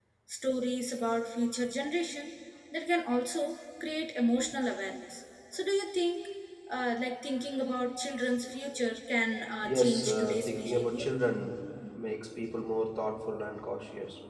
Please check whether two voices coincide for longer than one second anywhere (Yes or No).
Yes